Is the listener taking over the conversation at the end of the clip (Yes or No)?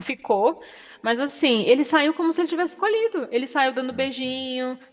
No